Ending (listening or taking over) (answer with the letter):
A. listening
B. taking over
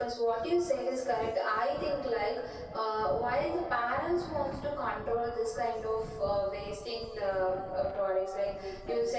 A